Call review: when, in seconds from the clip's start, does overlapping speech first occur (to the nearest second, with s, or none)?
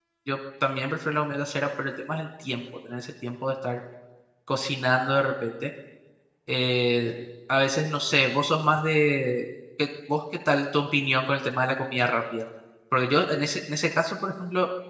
none